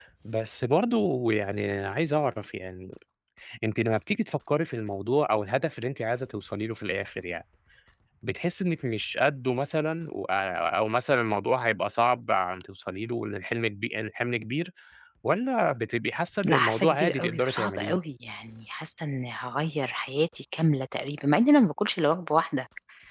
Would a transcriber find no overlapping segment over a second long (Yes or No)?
No